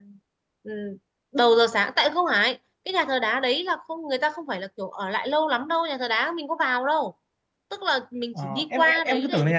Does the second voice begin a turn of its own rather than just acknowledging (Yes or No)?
Yes